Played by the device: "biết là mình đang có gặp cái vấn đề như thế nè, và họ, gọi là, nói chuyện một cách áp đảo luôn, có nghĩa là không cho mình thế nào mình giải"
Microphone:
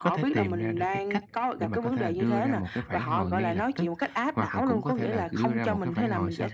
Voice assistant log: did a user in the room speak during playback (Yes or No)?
Yes